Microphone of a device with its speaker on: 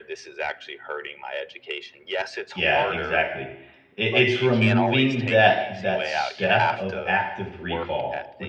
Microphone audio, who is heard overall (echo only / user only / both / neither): both